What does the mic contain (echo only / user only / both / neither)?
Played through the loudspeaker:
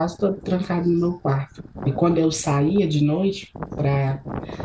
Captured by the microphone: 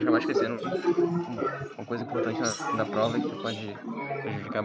both